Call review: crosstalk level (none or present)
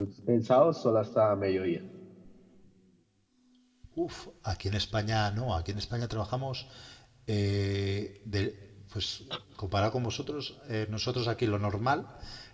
none